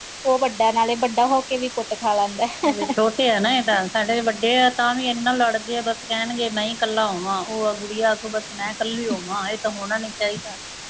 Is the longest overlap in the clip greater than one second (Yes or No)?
No